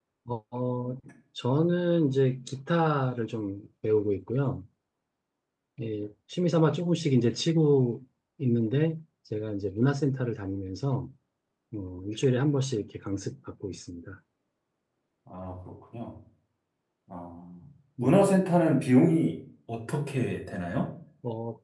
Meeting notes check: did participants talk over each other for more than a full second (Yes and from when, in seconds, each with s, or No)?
No